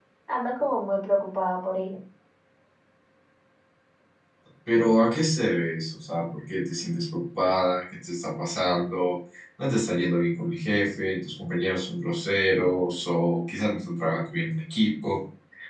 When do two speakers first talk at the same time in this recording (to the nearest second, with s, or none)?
none